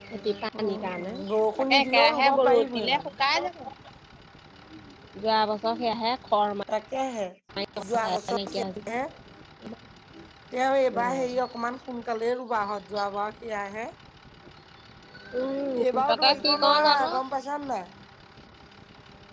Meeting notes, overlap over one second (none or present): present